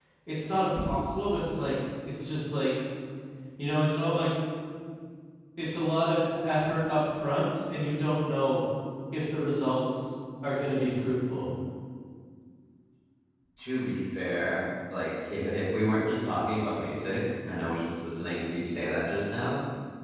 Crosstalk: none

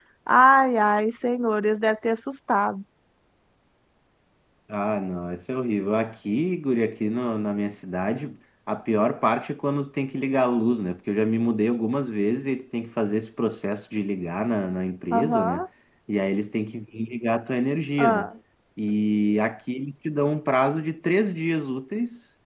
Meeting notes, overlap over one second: none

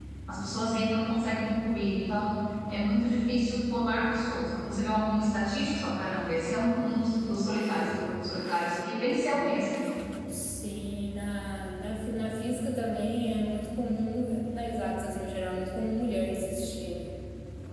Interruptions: none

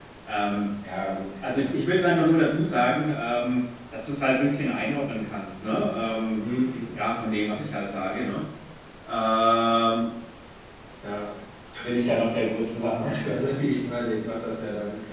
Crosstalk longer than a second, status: none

